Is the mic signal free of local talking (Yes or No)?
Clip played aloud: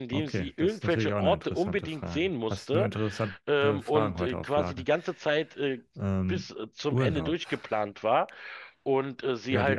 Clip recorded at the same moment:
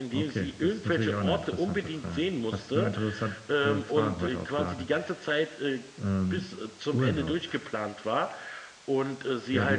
Yes